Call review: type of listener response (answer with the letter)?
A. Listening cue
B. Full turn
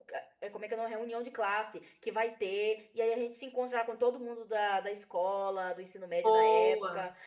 A